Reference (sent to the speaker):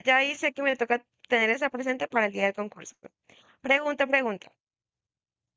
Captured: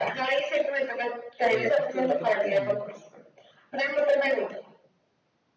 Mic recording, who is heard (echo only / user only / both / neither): both